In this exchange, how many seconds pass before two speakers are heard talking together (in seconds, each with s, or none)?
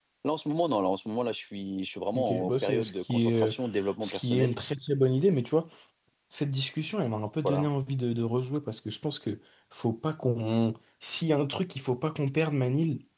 2.1 s